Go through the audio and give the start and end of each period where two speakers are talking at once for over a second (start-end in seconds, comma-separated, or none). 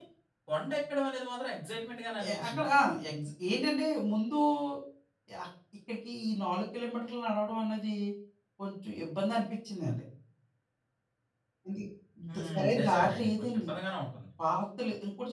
12.3-13.7